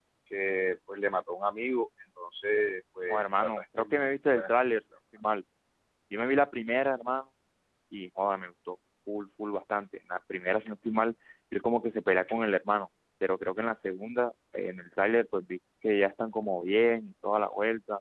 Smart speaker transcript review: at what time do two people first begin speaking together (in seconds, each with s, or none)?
3.1 s